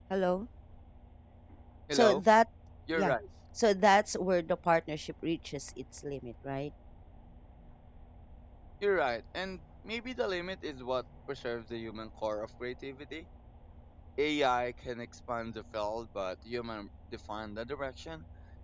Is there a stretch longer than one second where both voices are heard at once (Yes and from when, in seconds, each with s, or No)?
No